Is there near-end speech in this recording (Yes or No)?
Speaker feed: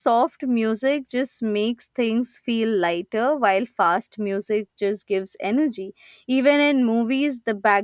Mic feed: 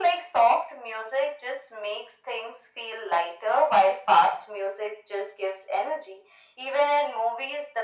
No